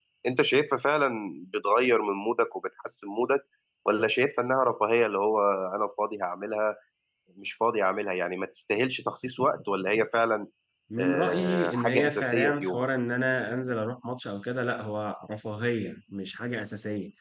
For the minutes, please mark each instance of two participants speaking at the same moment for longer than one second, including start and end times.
11.0-12.8

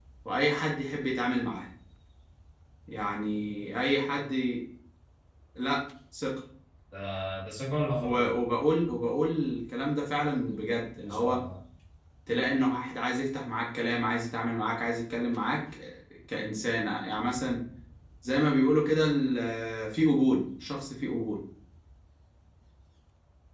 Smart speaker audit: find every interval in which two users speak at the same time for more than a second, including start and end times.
none

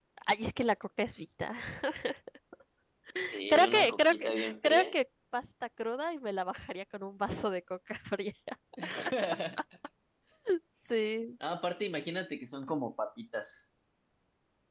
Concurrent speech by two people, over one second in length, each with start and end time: 3.5-4.8

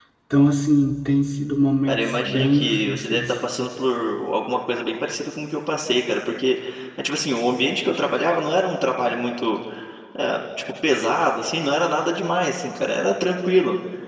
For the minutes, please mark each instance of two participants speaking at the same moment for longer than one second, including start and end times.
1.9-3.2

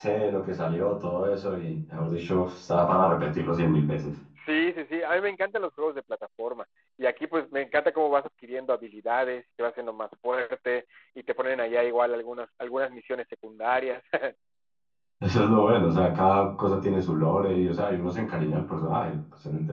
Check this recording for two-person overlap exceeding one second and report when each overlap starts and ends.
none

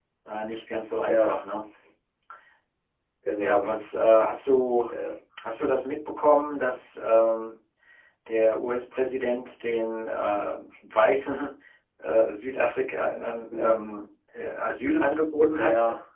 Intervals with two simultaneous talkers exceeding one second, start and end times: none

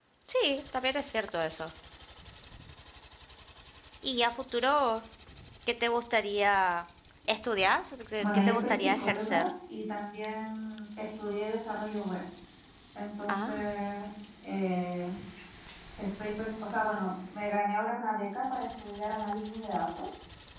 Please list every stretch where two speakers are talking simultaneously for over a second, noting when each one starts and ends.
8.2-9.5

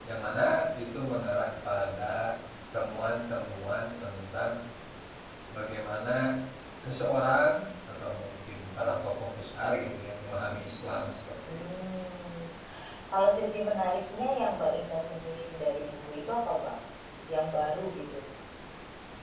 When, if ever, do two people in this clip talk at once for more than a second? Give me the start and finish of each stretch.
none

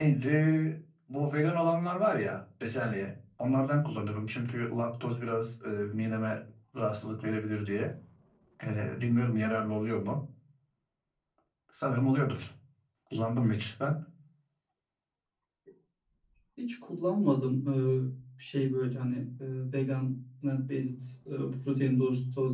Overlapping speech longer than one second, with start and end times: none

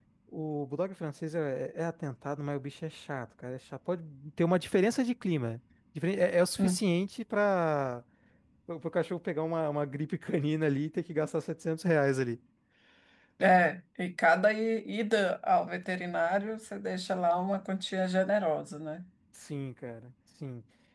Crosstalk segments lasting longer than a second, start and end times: none

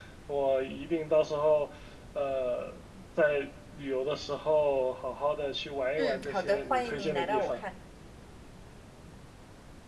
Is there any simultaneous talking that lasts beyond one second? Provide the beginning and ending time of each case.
6.0-7.6

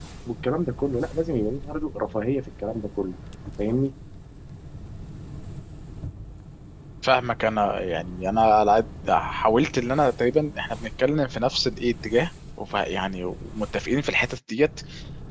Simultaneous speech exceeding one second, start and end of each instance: none

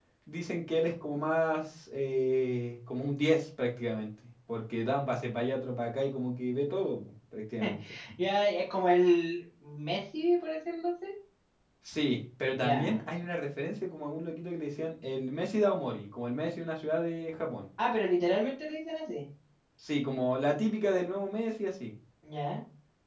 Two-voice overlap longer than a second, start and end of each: none

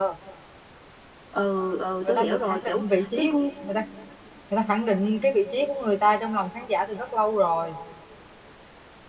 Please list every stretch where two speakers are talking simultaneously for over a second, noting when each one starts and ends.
2.0-3.4

